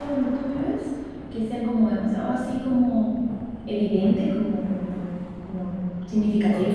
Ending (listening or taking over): taking over